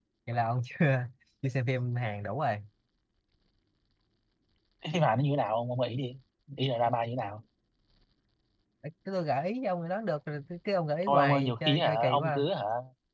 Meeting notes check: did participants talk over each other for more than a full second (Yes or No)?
Yes